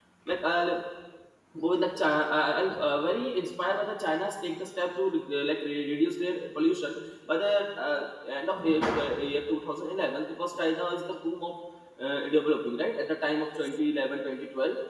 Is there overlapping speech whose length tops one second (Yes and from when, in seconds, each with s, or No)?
No